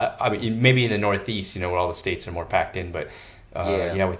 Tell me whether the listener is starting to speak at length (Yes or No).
No